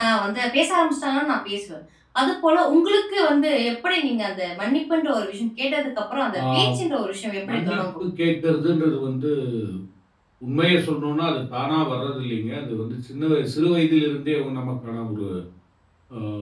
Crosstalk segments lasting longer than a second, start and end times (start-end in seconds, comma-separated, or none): none